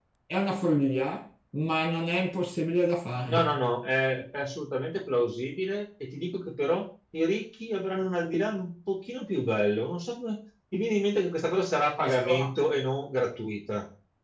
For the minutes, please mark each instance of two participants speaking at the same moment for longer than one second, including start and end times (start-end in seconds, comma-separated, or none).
none